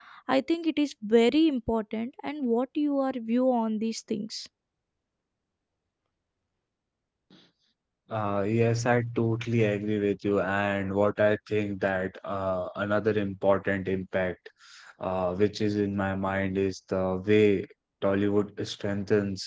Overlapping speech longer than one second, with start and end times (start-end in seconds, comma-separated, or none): none